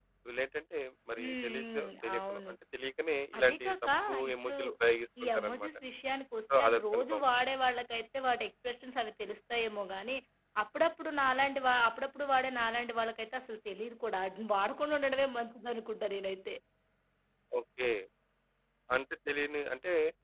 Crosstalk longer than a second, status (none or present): present